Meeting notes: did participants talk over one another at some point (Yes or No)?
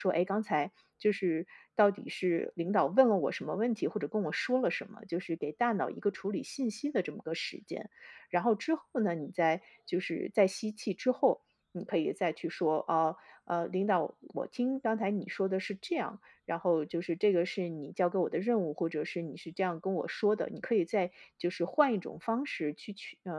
No